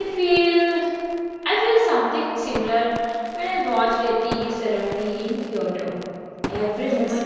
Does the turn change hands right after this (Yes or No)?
No